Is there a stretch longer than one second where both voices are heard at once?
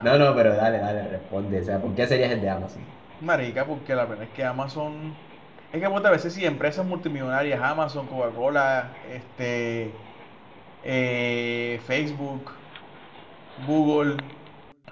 No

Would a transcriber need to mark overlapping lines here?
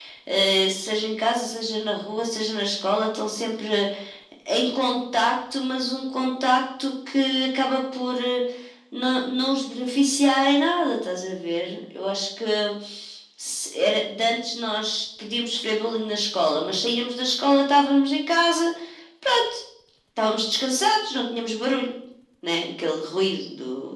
No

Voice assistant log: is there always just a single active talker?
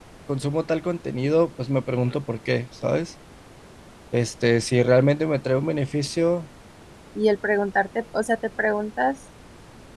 Yes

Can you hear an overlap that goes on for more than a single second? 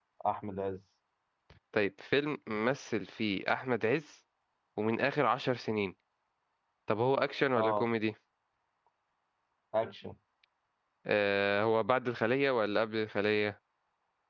No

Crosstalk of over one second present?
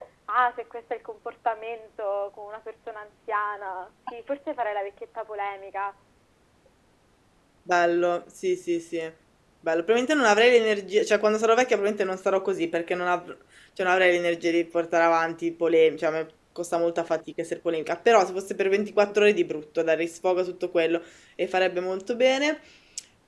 No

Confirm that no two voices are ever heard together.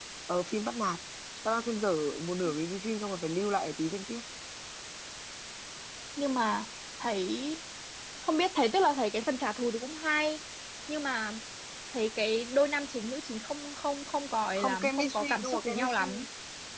No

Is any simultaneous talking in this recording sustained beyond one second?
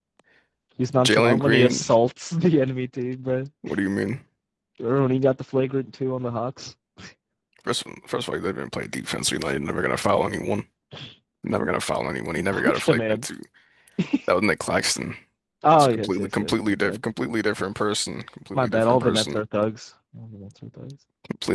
Yes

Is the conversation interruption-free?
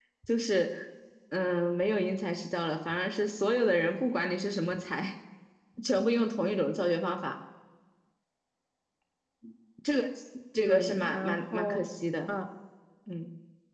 No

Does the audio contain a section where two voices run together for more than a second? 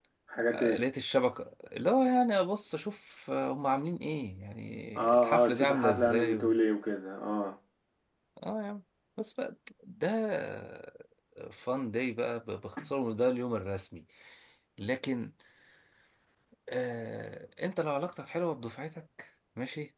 Yes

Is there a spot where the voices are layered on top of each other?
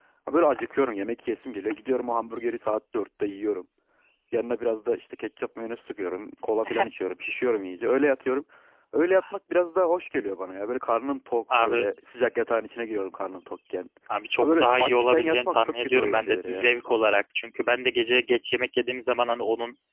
Yes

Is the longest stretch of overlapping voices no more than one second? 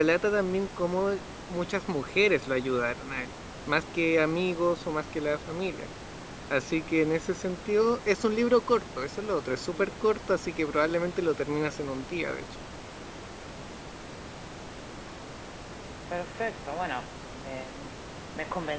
Yes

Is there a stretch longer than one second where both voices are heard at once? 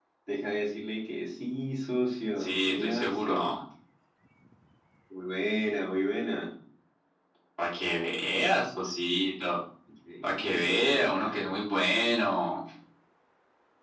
Yes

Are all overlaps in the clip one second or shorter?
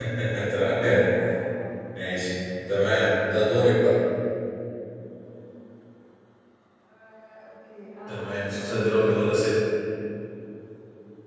No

